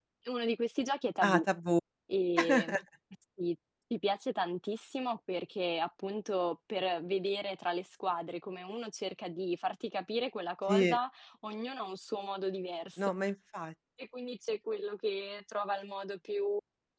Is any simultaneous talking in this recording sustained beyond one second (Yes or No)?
No